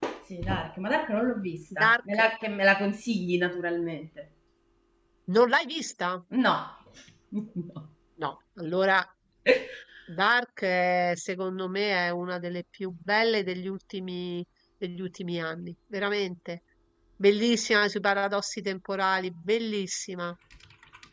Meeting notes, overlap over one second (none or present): none